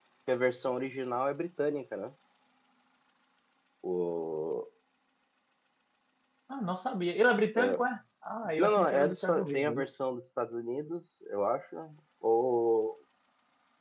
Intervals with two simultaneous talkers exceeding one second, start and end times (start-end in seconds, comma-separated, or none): 8.6-9.9